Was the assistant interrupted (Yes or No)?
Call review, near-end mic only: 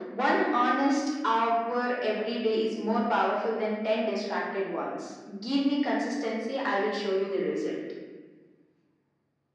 No